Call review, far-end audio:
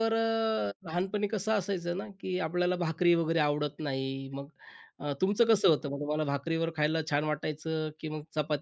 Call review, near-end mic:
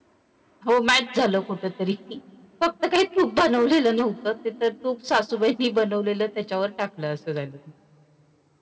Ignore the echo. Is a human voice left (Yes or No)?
Yes